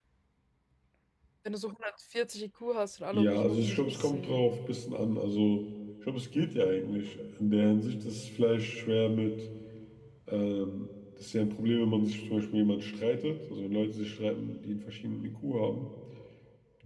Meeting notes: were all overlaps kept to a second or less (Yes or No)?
No